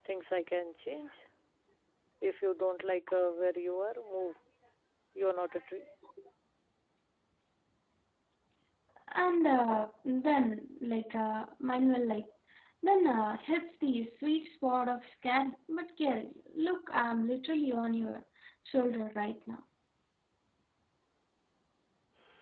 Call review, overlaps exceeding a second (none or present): none